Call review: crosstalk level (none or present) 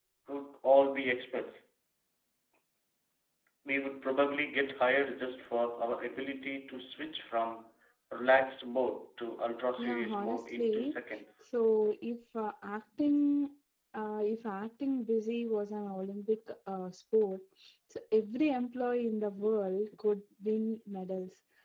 present